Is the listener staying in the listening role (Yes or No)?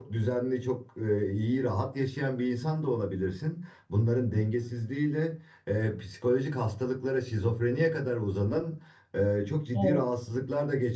Yes